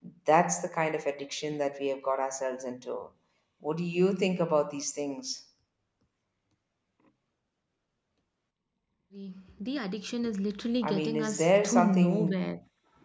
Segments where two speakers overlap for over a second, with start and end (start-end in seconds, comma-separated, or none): 10.9-12.5